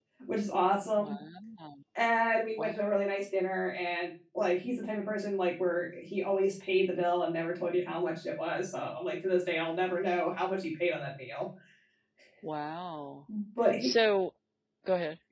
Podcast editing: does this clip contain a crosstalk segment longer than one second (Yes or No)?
No